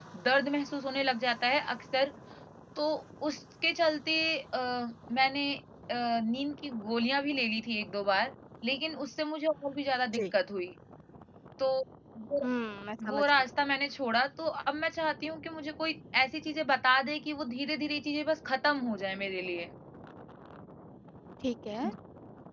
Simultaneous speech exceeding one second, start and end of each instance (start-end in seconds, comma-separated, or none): none